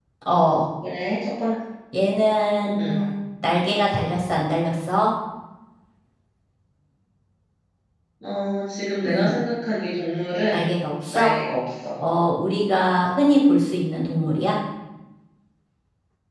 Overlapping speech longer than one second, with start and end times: none

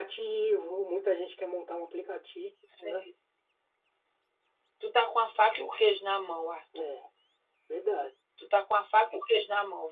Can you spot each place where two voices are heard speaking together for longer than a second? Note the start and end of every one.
none

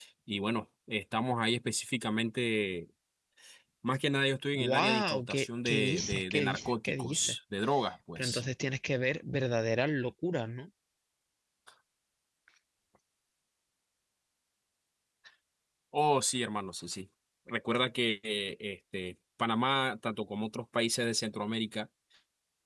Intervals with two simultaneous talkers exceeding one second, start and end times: 4.6-7.4

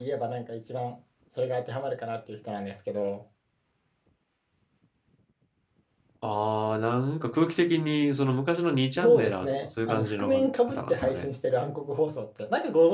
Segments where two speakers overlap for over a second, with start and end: 9.0-11.3

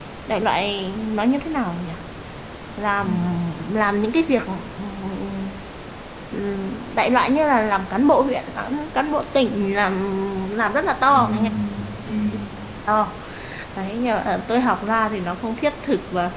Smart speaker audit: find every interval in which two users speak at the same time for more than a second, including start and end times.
none

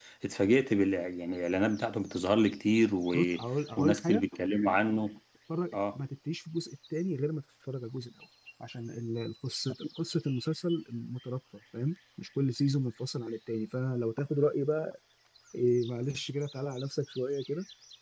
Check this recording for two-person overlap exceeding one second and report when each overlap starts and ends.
none

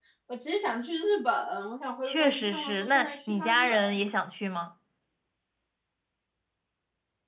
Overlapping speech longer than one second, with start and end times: 2.0-4.0

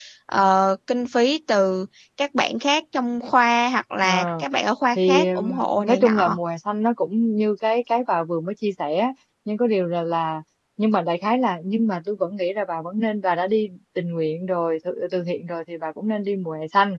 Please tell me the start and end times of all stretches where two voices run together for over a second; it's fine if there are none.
5.0-6.4

